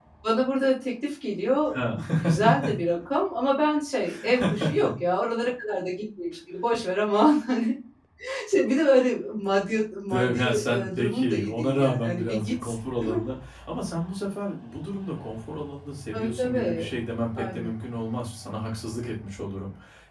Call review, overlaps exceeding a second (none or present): present